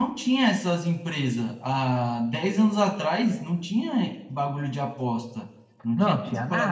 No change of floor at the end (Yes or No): No